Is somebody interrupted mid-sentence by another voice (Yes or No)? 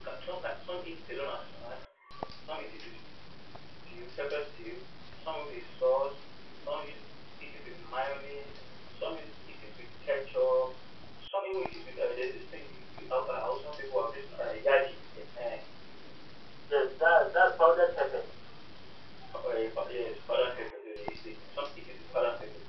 No